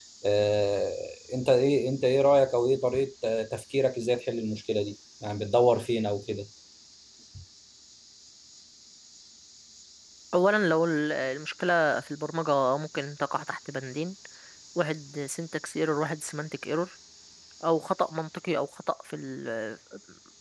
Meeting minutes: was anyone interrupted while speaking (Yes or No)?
No